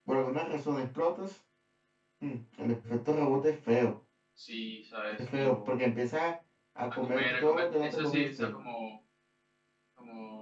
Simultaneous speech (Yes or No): Yes